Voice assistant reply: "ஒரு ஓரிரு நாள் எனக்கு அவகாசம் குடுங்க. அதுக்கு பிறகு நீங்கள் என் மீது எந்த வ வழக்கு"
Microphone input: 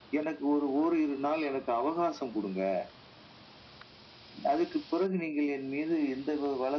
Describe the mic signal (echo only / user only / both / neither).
echo only